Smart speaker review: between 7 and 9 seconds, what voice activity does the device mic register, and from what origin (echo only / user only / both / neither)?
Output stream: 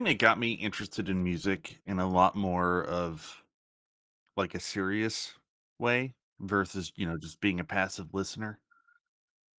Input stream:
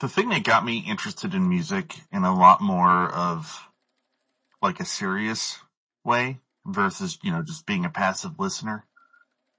echo only